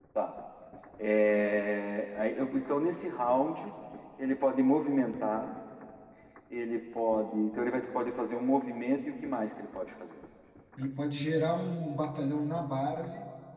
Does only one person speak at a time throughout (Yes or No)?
Yes